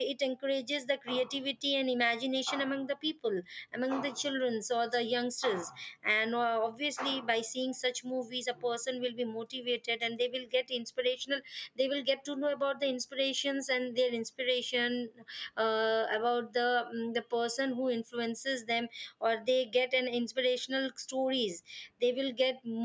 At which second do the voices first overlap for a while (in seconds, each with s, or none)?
none